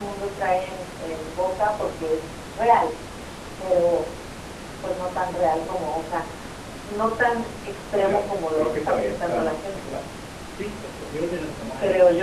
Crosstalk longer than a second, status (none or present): present